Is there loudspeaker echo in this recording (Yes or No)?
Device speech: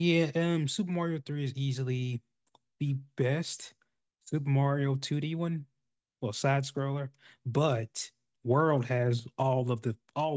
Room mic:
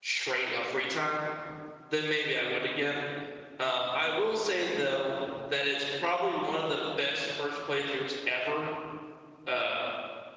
No